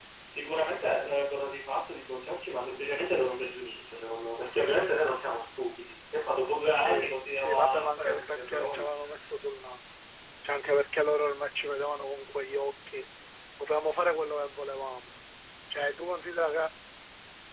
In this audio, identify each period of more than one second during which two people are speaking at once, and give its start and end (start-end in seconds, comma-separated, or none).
7.4-8.8